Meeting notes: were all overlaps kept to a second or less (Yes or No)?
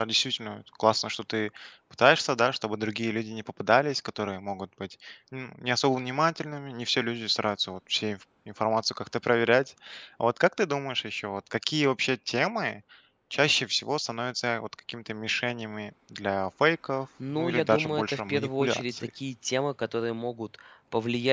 No